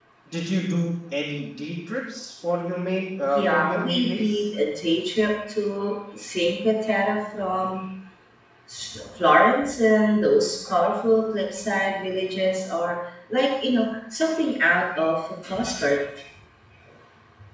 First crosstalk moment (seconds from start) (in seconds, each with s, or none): 3.2 s